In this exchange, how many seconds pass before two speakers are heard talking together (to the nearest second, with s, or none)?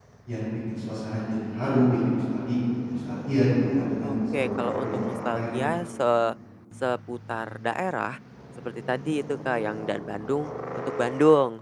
4 s